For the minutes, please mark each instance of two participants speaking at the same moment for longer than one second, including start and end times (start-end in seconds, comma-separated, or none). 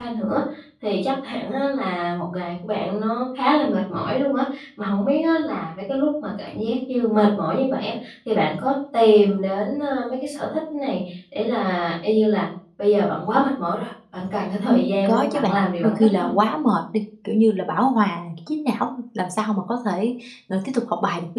14.7-16.3